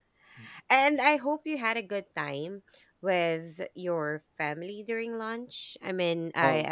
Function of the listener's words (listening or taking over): listening